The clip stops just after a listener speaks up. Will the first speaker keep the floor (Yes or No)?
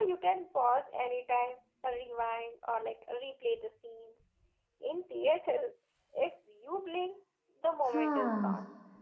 No